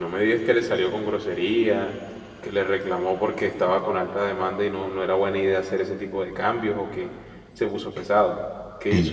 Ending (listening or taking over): taking over